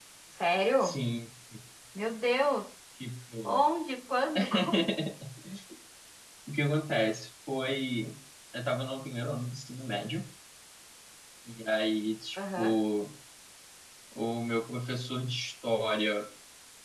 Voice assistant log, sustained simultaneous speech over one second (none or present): none